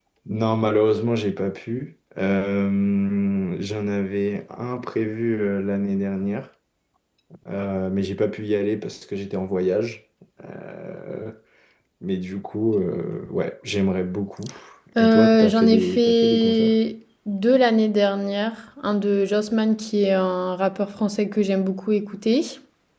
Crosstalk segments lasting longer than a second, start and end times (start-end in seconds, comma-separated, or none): 15.0-16.7